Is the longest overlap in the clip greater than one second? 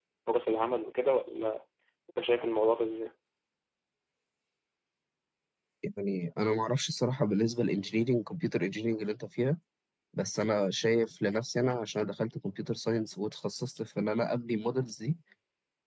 No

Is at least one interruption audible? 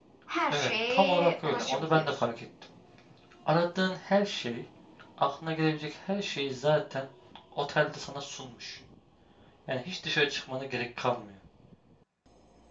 Yes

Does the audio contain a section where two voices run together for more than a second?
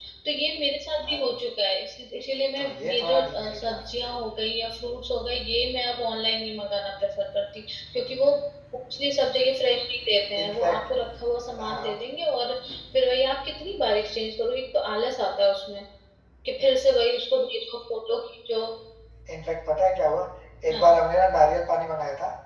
Yes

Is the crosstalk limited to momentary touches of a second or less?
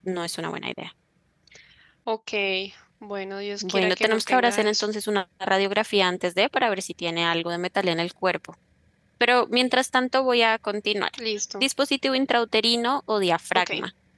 No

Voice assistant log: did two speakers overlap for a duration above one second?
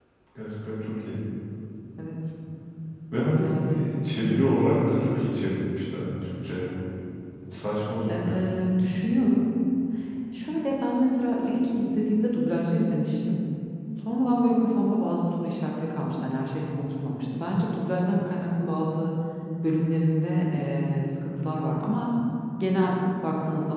No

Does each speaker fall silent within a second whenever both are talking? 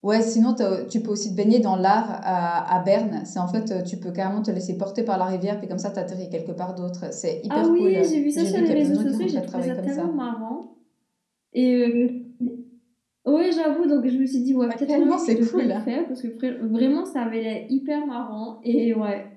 No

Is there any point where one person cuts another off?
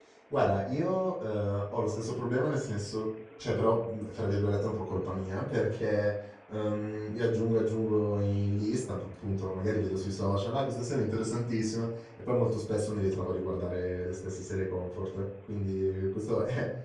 No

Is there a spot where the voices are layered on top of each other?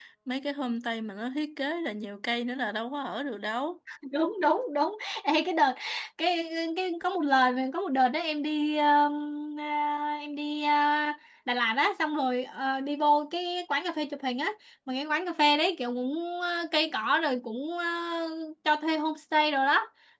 No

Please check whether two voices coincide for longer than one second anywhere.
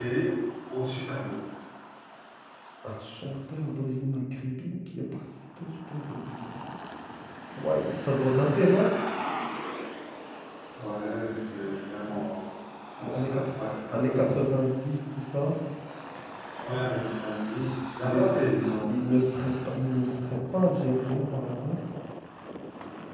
No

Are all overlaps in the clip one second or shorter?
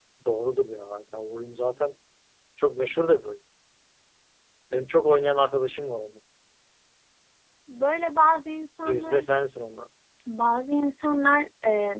Yes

